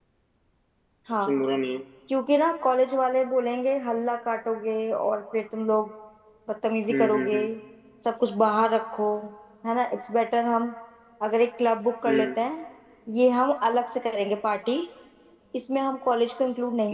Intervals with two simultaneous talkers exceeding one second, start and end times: none

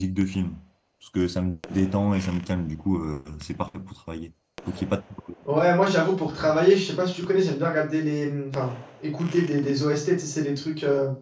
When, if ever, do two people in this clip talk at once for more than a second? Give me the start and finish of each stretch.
none

